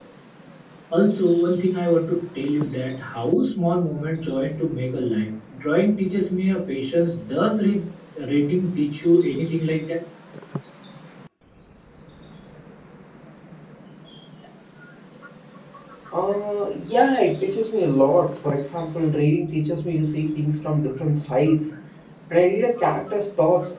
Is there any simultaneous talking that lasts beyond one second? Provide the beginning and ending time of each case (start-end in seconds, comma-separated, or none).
none